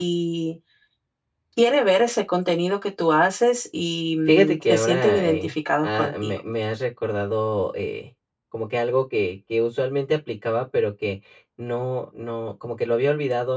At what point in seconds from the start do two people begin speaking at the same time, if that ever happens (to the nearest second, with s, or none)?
4 s